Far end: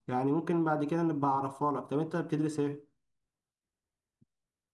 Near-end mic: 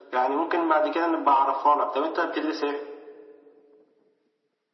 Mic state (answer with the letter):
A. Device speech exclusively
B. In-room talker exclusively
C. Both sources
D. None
A